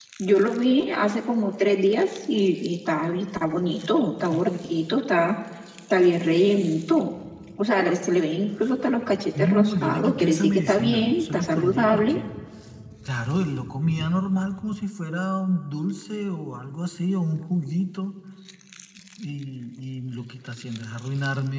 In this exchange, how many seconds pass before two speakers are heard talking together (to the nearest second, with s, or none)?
9 s